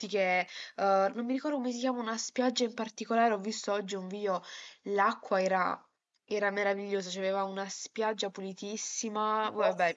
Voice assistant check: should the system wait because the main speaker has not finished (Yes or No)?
Yes